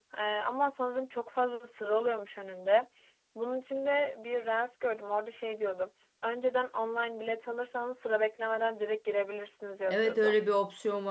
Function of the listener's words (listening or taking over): taking over